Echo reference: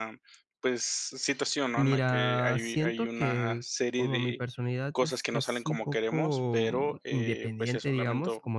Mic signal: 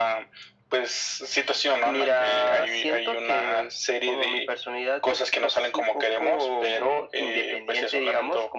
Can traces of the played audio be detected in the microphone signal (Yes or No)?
Yes